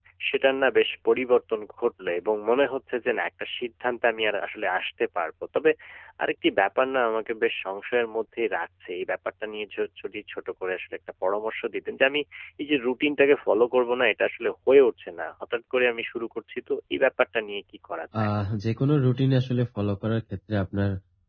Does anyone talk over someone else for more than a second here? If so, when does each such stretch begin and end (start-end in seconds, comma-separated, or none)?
none